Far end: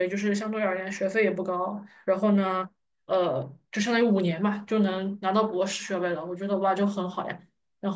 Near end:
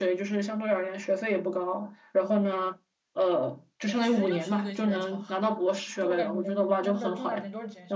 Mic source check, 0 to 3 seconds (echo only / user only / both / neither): echo only